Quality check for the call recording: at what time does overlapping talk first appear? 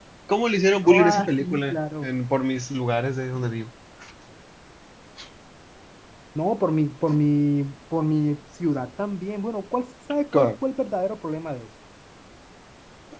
1 s

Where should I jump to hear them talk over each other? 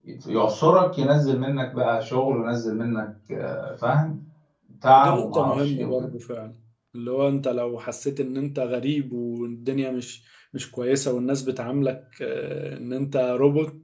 5 s

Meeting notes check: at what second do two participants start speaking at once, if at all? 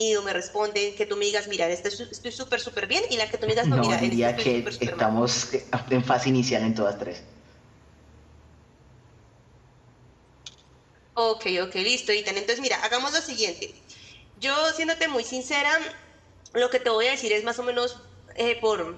4 s

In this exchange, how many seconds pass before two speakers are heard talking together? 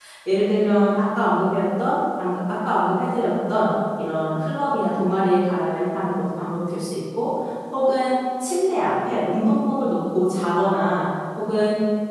none

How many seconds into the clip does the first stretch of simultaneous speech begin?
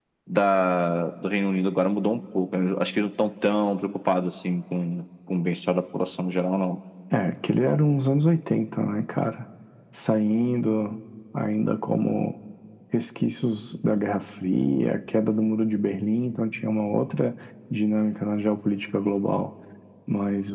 none

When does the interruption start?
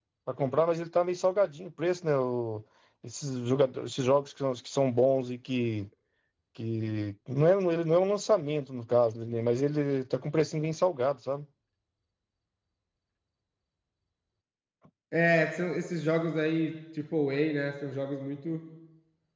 none

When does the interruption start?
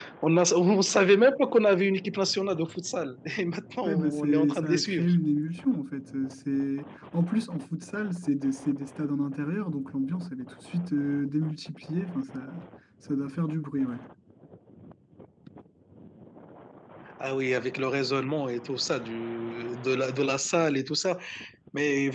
4 s

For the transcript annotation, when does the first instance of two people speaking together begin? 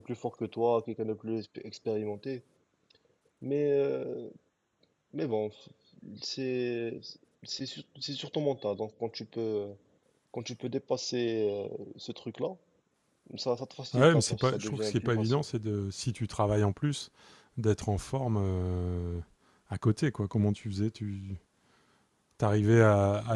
14 s

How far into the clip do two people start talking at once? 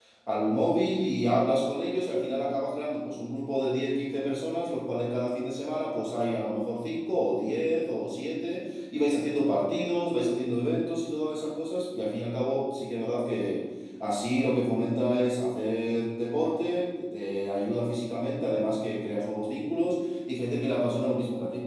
none

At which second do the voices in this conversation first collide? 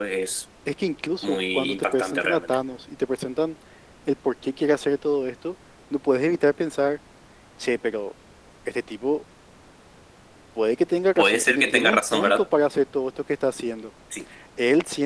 1 s

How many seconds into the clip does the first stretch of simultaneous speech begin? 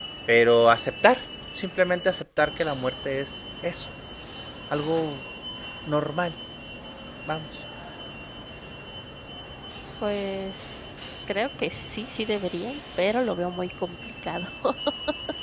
none

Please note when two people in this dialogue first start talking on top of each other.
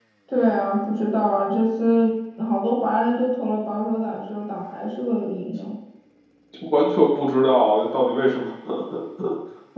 none

